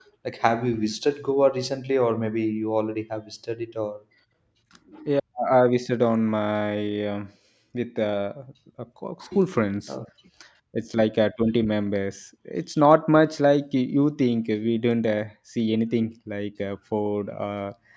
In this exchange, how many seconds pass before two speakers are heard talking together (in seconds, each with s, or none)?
none